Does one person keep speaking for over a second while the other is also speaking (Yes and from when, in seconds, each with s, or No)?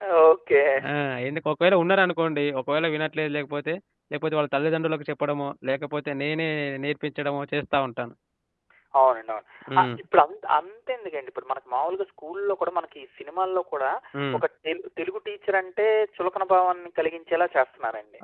No